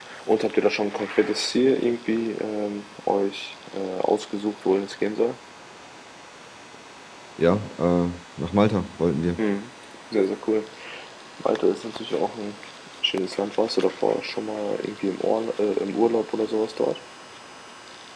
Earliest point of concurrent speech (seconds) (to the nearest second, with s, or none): none